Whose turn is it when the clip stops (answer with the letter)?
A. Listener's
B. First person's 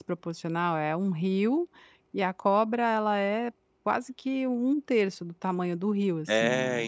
A